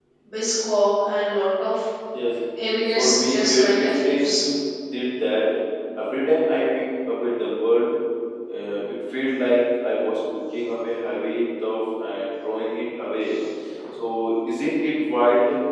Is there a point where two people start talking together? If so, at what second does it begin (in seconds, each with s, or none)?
3.0 s